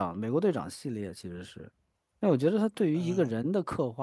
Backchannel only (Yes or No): Yes